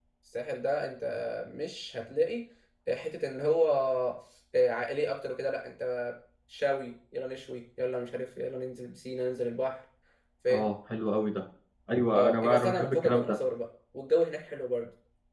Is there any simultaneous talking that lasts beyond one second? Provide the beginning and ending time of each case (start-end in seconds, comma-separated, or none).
12.2-13.4